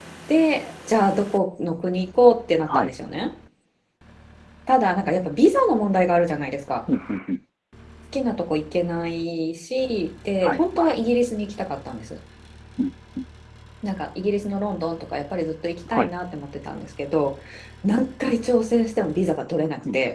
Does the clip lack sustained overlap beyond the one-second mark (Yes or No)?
Yes